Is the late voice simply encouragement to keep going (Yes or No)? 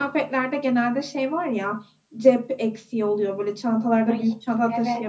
Yes